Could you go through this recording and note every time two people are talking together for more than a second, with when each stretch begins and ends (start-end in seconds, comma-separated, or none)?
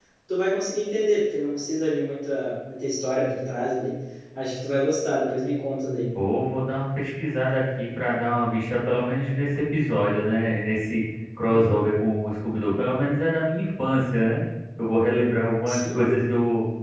none